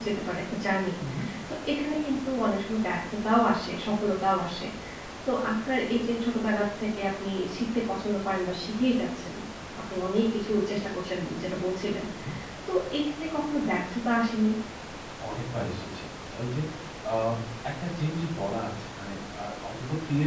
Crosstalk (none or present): none